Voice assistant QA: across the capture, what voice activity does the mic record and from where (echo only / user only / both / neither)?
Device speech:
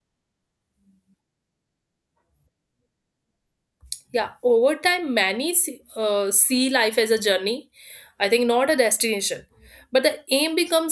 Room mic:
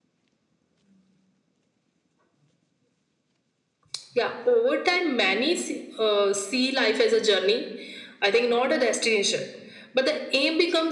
echo only